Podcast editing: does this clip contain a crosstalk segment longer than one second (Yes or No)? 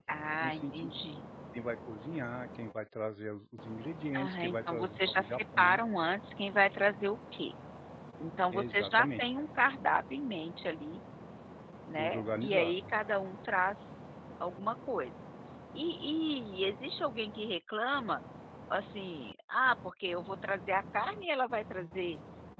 Yes